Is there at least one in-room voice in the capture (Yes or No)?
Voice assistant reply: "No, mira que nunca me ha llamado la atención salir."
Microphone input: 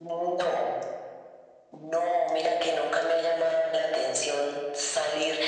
No